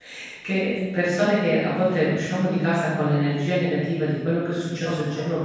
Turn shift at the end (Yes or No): No